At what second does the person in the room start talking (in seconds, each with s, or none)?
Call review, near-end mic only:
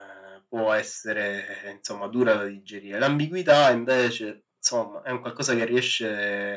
none